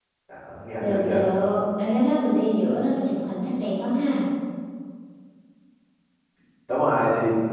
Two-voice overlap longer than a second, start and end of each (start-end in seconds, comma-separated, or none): none